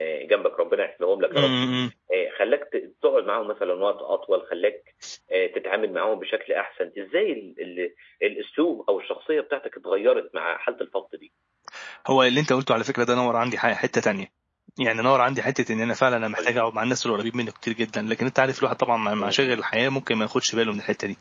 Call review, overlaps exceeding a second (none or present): none